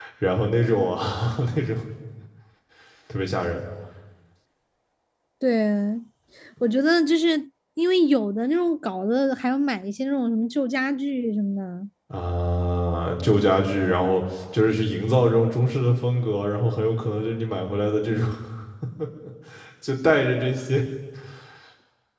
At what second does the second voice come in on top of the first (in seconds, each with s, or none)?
none